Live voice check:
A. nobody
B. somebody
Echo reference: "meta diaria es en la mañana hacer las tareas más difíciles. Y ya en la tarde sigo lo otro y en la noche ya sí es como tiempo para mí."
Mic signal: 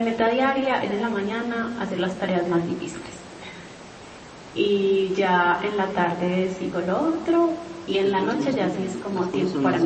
B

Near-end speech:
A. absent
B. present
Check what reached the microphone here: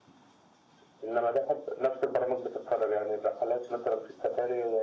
A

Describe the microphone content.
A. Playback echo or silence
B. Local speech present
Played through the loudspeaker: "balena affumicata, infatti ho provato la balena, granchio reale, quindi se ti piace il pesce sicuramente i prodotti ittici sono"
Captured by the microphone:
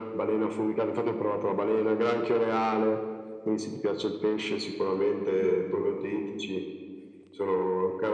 A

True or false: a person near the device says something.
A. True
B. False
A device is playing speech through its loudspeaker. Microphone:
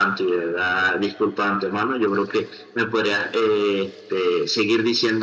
B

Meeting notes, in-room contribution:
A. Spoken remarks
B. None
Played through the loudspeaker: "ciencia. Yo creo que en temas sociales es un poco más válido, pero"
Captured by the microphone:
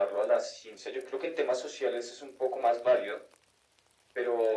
B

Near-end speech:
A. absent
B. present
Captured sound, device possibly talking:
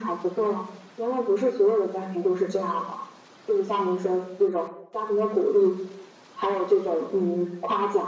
A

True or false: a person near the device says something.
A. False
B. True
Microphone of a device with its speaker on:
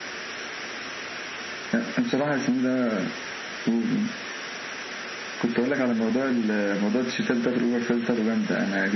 A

